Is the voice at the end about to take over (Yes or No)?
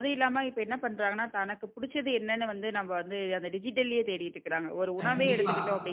No